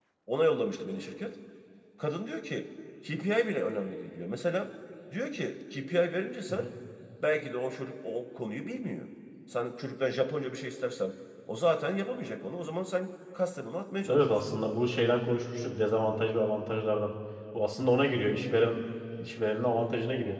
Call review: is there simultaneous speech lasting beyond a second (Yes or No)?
No